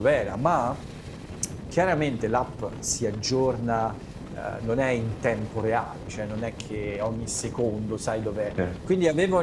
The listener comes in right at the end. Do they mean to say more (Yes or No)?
No